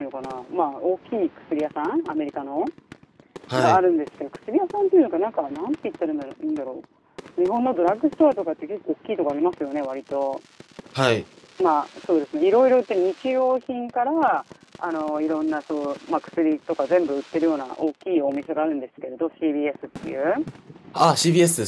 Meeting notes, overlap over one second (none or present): none